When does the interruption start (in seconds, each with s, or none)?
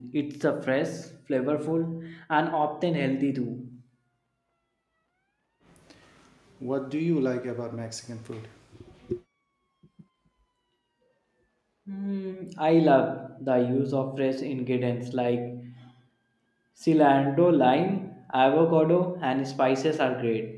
none